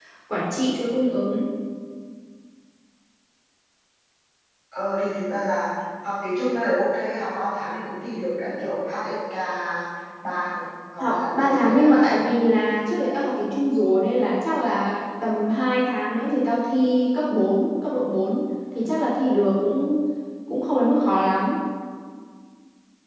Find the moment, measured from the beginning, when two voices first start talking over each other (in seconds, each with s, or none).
11.0 s